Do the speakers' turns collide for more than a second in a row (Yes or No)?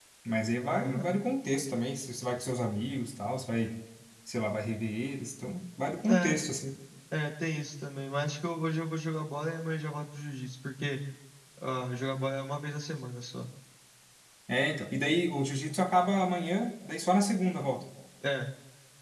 No